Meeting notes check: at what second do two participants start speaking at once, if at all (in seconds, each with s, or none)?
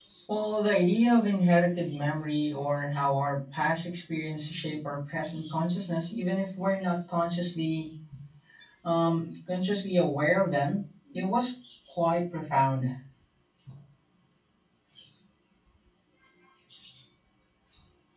none